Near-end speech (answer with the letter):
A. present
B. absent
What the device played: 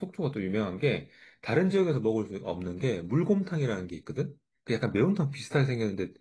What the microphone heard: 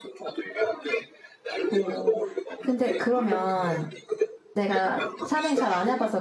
A